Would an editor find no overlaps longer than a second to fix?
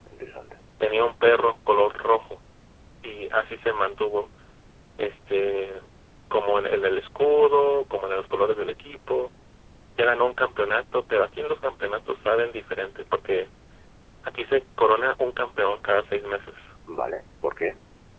Yes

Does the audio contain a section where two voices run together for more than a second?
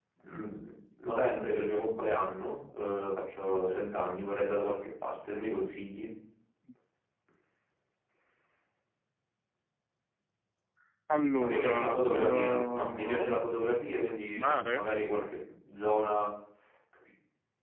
Yes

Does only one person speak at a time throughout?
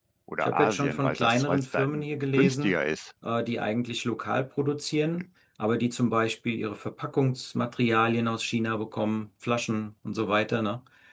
No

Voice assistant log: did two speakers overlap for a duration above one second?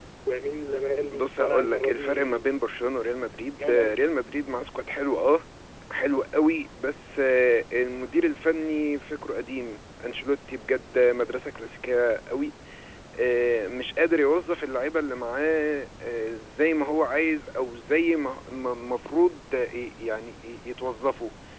Yes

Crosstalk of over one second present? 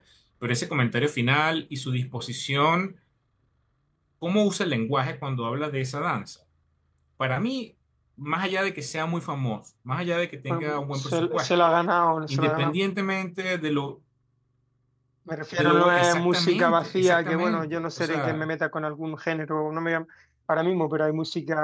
Yes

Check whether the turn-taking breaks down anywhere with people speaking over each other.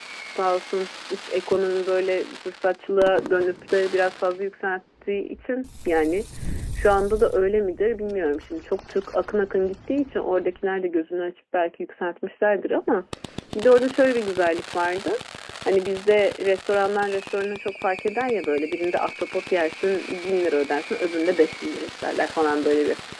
No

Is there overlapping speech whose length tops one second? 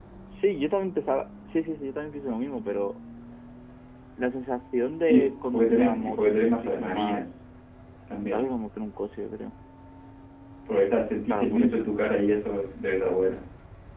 Yes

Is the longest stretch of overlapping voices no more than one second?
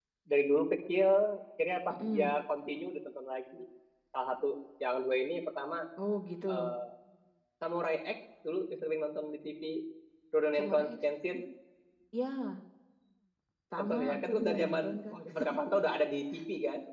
No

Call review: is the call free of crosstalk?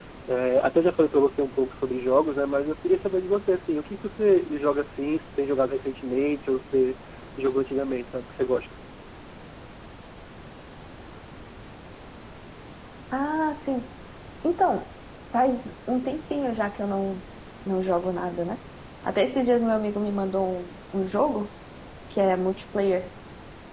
Yes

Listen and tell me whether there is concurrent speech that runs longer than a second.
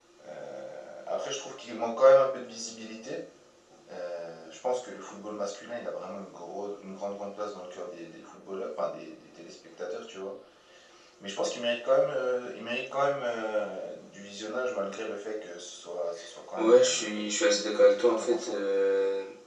Yes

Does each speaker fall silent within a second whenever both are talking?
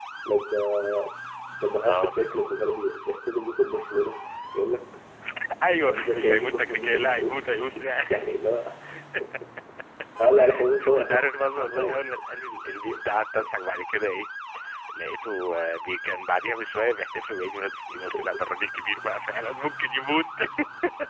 No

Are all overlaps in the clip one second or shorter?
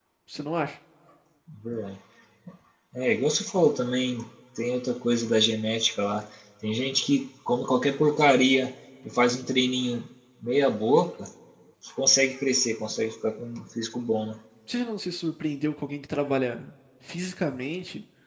Yes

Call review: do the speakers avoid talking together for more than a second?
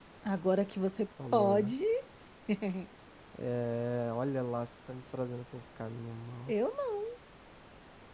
Yes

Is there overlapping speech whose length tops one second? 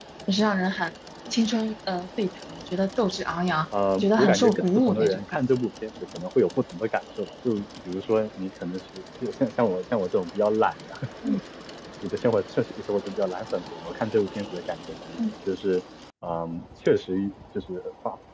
Yes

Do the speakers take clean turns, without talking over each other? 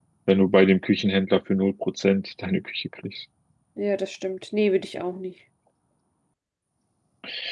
Yes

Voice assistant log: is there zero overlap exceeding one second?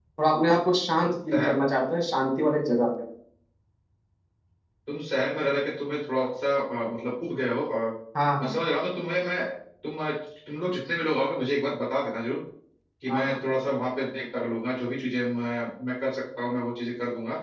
Yes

